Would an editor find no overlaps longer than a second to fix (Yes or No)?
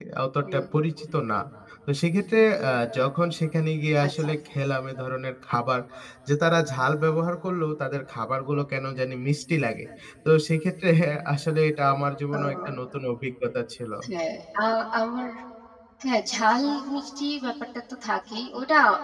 Yes